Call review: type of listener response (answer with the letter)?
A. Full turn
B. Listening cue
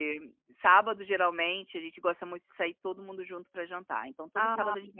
A